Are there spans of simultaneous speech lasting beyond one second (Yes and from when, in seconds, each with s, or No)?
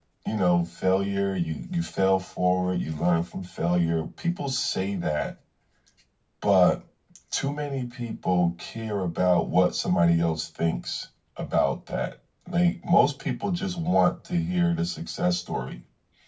No